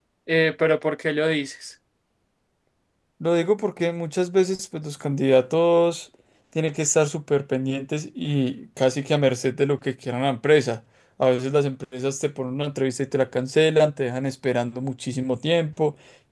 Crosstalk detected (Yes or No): No